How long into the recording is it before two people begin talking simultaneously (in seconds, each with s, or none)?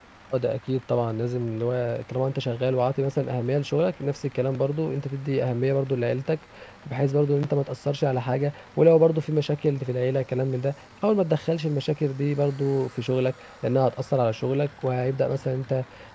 none